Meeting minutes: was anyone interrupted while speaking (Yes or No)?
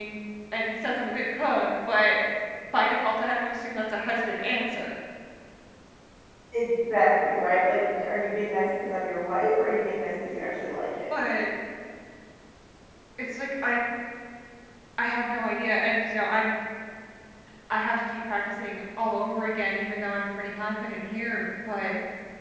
No